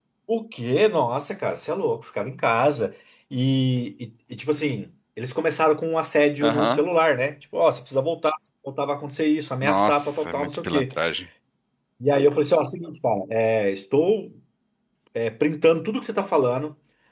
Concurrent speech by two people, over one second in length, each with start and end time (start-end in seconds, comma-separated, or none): 9.6-10.9